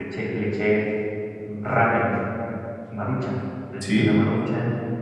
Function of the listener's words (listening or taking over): listening